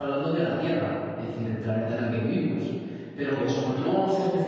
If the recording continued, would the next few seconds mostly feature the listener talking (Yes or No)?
No